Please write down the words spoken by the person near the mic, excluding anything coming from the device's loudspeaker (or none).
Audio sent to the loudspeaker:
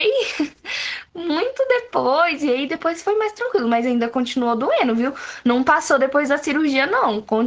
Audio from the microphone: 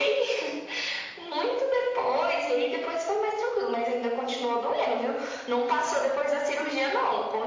none